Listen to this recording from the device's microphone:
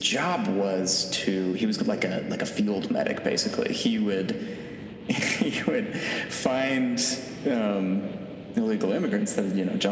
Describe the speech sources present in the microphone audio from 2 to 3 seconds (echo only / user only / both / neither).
echo only